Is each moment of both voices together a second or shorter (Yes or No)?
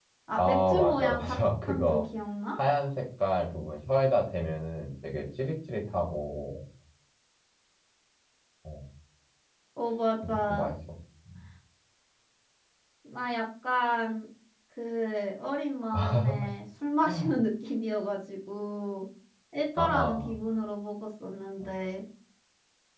No